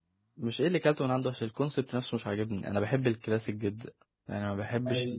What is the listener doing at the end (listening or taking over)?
listening